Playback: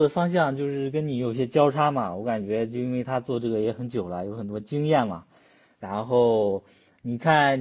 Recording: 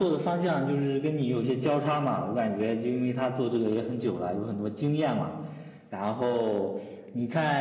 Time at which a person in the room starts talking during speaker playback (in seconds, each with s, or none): none